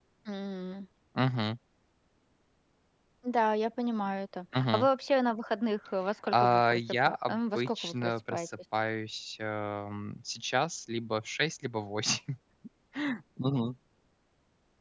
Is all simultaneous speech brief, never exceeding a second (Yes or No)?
No